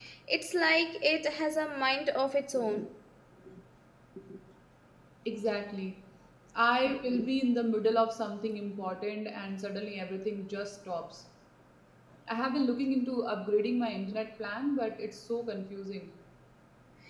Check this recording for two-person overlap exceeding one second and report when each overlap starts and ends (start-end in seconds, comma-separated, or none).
none